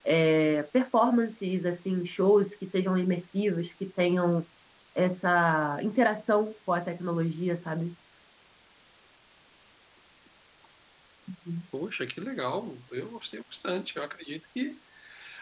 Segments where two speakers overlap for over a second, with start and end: none

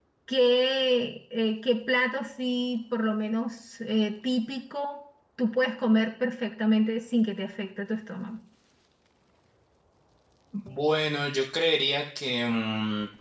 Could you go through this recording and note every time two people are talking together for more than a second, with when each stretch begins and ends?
none

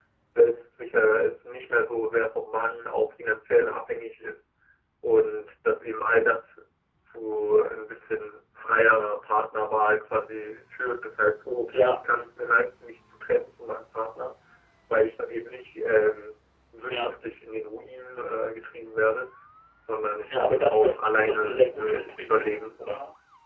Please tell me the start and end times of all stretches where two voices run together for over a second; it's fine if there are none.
20.3-22.6

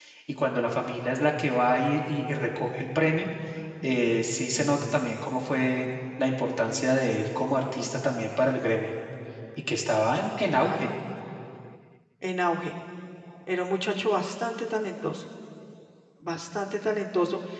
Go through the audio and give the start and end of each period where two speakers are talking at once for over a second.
none

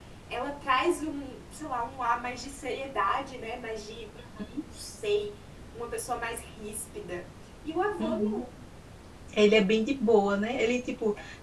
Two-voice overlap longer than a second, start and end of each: none

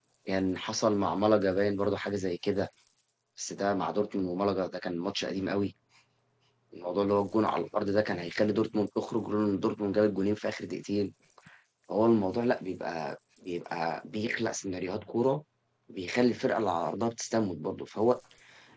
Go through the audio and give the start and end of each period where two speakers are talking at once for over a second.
none

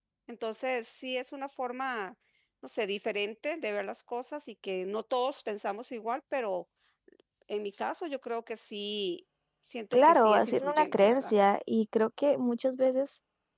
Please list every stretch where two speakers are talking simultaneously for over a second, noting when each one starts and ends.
9.9-11.3

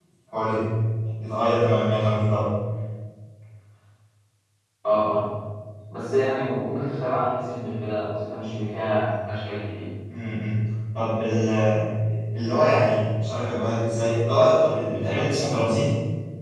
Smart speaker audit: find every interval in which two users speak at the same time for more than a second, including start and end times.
none

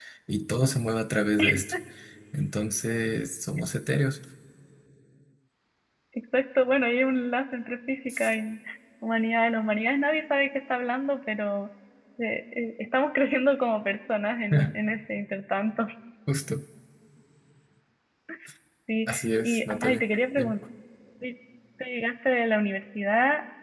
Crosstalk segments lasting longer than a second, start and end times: 19.1-20.5

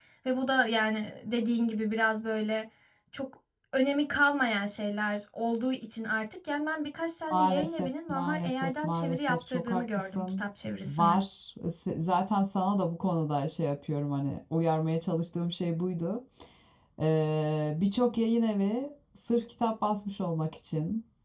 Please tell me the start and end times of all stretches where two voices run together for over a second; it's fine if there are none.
7.3-10.4

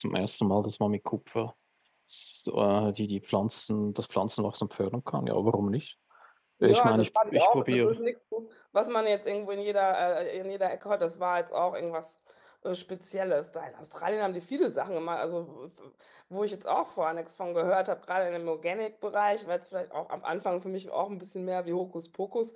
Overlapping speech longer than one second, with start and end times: 6.6-8.0

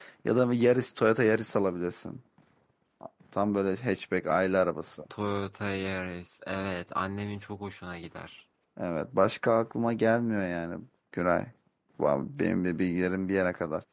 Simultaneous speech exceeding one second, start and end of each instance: none

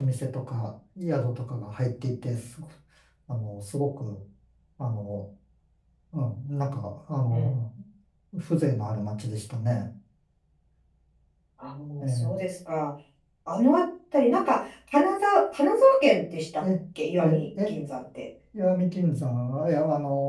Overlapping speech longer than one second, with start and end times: none

